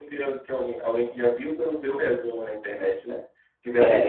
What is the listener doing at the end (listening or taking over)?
listening